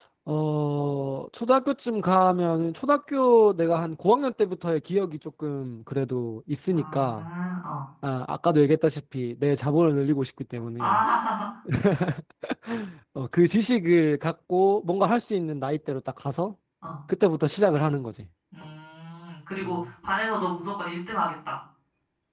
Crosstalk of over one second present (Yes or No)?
No